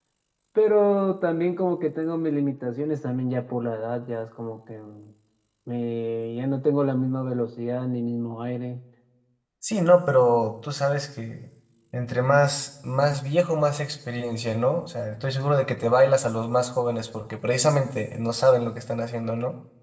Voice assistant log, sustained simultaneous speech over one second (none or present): none